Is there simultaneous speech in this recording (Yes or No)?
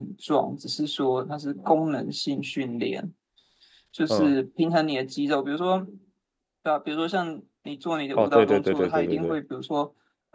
Yes